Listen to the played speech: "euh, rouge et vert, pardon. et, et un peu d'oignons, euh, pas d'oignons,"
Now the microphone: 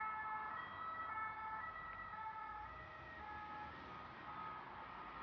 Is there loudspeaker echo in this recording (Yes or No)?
No